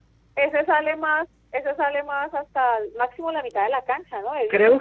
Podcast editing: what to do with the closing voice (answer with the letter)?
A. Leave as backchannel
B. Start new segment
B